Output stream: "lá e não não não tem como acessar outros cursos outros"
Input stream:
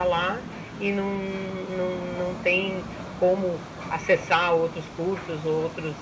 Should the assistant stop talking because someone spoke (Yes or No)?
No